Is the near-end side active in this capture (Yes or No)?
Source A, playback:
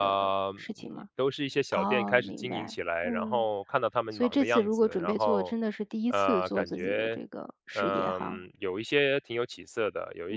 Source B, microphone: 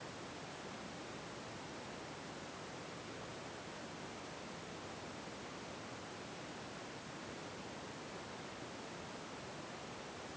No